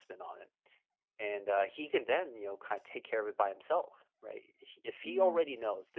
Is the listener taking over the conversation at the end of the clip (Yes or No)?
No